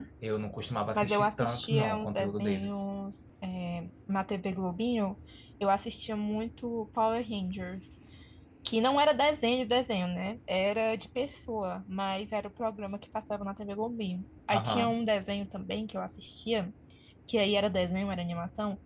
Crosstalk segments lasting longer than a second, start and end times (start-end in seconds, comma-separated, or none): 0.9-2.9